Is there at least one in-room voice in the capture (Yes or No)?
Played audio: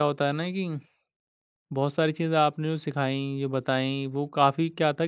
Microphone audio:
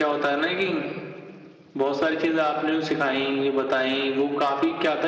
No